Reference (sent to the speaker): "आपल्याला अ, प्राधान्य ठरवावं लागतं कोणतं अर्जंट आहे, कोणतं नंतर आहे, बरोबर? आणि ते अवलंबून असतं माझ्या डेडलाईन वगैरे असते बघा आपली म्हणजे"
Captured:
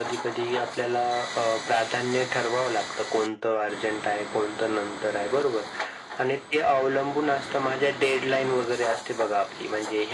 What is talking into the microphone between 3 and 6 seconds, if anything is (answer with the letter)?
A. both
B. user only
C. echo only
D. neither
C